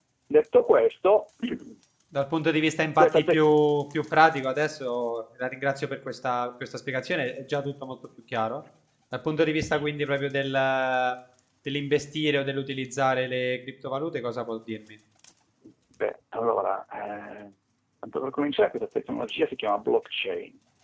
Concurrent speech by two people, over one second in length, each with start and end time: none

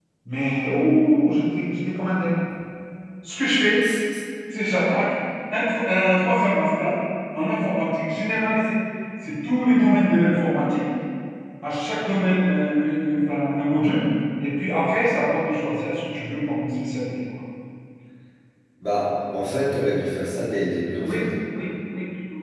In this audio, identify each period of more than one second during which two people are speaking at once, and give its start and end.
none

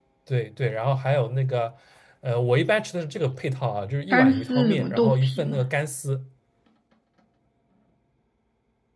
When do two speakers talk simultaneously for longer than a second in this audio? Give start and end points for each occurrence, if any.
4.1-5.6

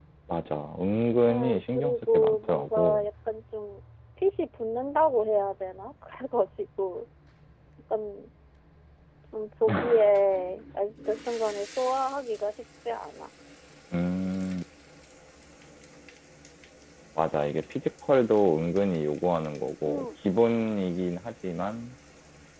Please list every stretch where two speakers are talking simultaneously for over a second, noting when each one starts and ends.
1.3-3.0

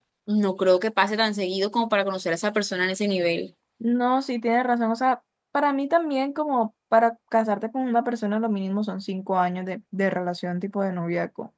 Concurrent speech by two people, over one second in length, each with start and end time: none

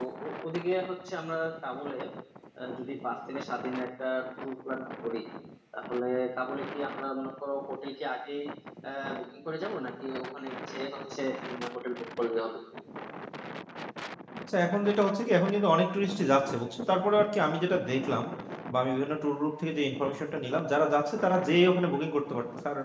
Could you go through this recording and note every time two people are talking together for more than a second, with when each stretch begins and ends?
none

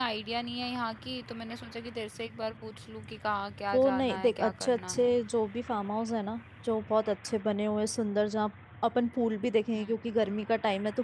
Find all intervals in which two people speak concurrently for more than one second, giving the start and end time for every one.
3.7-5.2

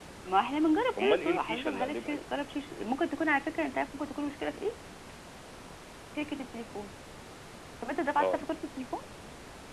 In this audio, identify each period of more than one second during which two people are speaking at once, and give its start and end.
1.0-2.2

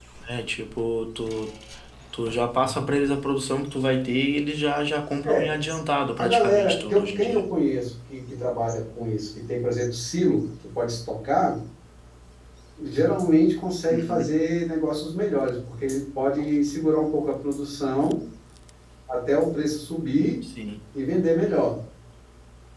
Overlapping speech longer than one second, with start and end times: 6.2-7.4

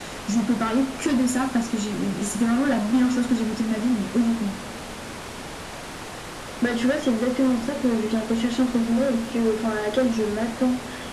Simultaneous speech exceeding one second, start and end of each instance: none

